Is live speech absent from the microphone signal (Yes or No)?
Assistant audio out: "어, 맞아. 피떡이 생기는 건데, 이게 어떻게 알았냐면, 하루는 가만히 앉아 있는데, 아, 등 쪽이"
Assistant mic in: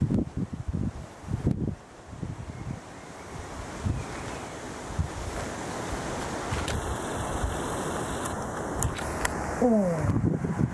No